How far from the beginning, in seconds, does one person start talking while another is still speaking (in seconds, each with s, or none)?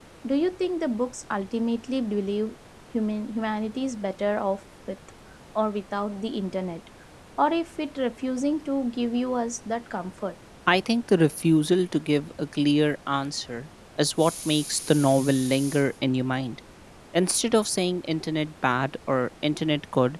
none